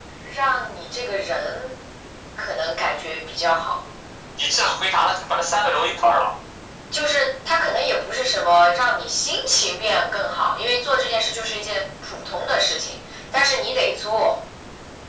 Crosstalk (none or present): none